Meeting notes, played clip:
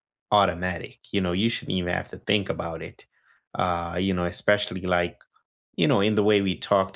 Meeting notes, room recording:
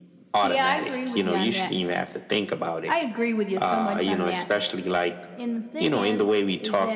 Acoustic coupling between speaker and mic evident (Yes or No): Yes